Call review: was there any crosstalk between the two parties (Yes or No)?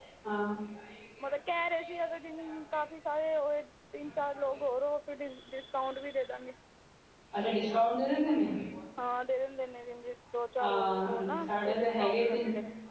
Yes